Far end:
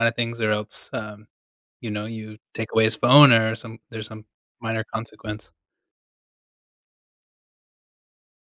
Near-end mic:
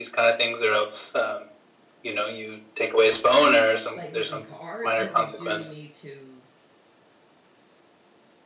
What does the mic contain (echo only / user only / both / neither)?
both